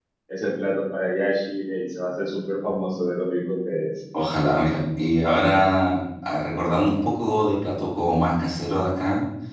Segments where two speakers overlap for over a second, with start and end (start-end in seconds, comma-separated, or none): none